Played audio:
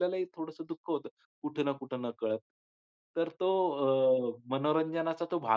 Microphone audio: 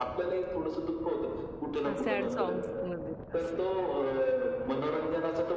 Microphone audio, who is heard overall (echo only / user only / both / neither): both